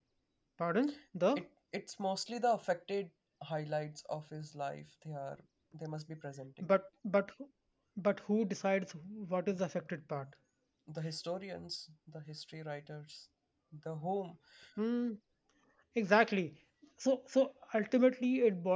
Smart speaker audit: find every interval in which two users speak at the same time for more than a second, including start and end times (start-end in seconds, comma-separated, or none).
none